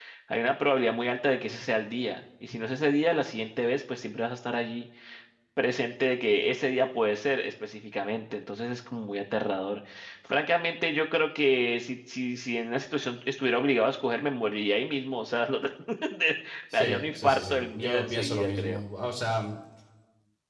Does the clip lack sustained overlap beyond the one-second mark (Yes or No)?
No